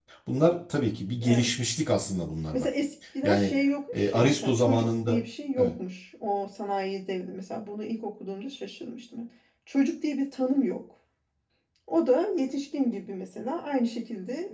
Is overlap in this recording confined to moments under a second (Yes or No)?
No